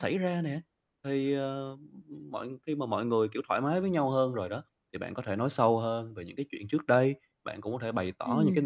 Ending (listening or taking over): listening